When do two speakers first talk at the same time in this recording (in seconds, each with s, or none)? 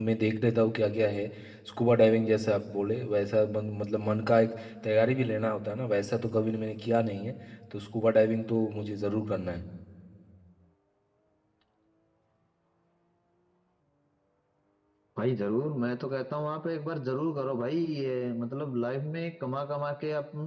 none